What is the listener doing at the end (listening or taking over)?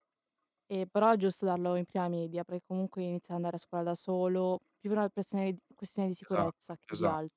taking over